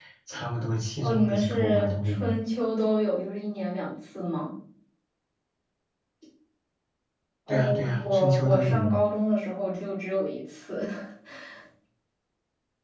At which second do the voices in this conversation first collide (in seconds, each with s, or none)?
1.0 s